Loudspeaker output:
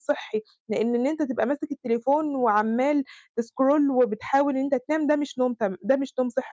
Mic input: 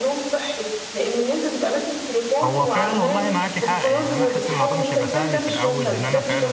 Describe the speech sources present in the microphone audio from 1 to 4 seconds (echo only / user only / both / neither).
both